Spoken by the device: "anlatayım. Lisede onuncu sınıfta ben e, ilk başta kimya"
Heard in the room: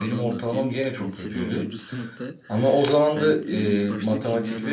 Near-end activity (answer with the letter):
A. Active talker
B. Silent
A